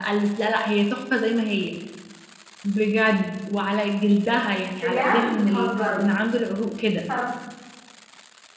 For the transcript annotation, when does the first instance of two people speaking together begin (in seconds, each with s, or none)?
4.8 s